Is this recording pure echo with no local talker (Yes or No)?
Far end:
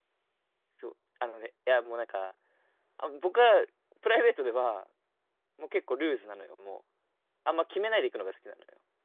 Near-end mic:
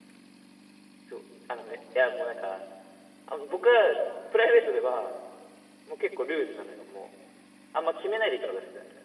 Yes